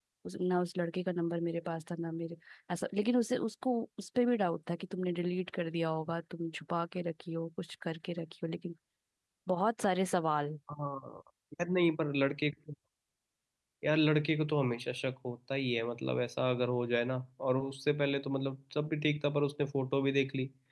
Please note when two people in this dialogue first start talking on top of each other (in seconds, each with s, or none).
none